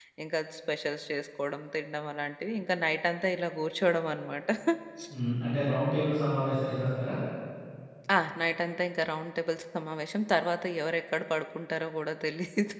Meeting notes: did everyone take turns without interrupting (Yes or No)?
Yes